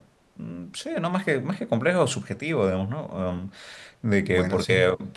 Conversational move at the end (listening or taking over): listening